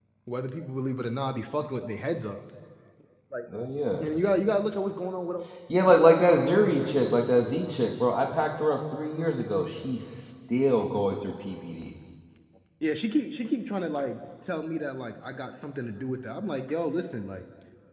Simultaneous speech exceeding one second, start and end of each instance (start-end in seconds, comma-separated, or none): none